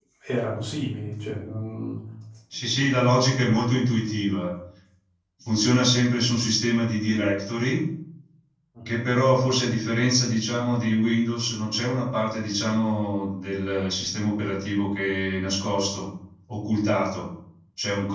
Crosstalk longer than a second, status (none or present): none